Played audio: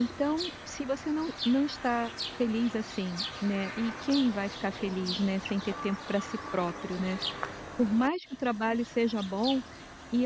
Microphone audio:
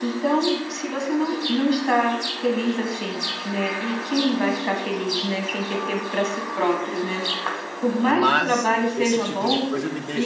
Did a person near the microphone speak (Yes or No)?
Yes